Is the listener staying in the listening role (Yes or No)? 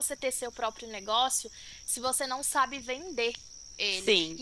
Yes